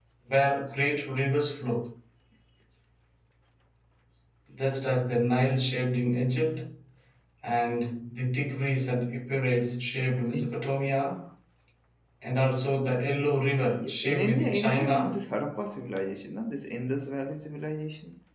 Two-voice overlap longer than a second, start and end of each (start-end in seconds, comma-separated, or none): 13.7-15.2